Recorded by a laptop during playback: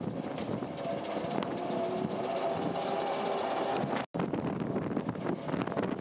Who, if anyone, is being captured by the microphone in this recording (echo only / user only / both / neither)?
neither